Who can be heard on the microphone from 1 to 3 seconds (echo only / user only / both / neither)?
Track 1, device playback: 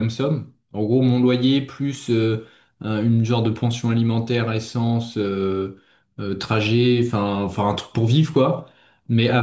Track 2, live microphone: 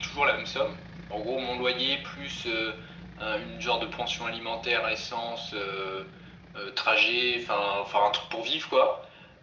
echo only